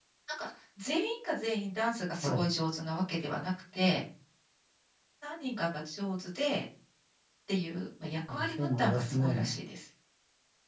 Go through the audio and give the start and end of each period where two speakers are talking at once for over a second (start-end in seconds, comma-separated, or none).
8.3-9.5